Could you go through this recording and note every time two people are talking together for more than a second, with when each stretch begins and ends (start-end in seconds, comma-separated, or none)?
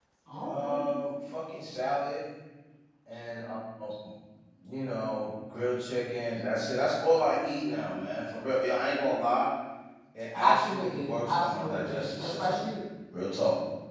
10.3-12.6